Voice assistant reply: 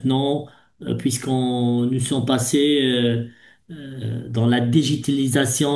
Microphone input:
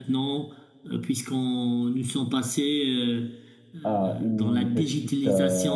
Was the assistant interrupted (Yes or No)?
Yes